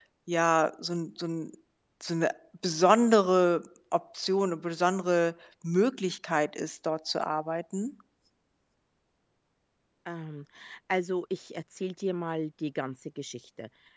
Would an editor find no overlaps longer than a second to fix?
Yes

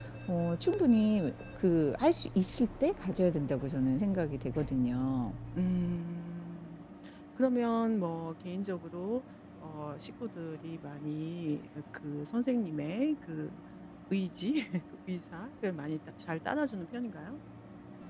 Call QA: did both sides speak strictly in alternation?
Yes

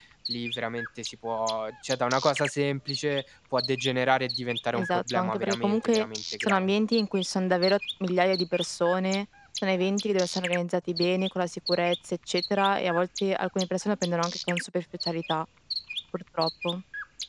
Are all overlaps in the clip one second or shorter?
No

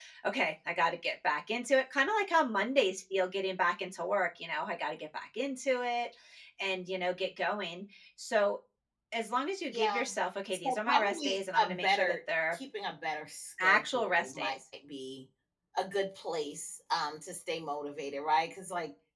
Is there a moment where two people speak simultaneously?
Yes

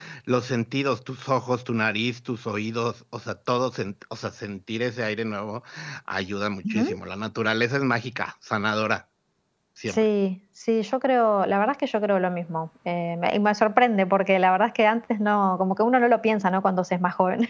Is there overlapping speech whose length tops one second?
No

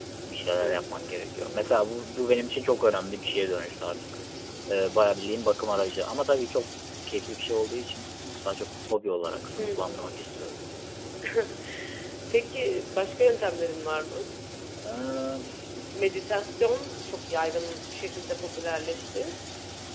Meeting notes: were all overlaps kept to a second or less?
No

